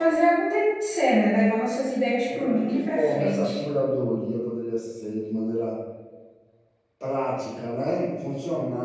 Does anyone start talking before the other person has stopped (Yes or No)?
Yes